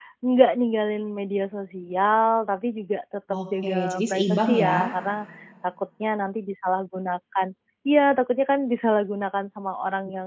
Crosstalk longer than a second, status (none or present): present